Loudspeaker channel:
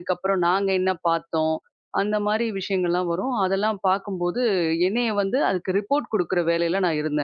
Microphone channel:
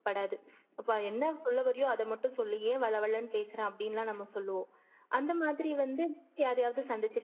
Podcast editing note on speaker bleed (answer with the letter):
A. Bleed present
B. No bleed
B